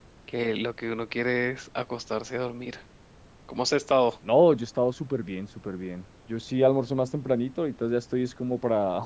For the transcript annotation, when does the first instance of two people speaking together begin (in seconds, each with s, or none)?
none